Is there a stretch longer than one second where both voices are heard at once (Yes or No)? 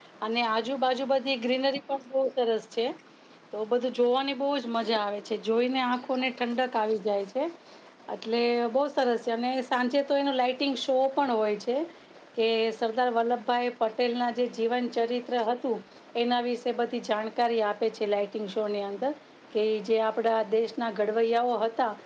No